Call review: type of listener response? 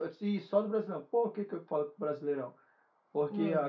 listening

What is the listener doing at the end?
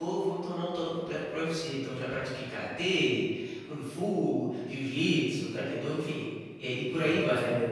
taking over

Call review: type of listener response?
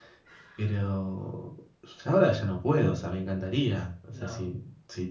listening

